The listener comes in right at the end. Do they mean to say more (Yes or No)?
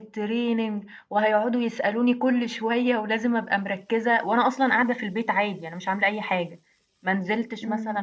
No